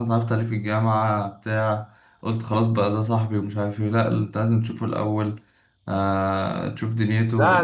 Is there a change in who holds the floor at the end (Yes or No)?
Yes